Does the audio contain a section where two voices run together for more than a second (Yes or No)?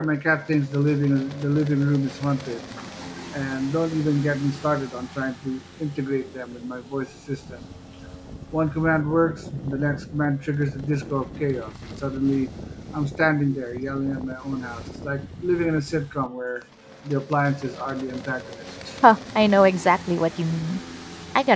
No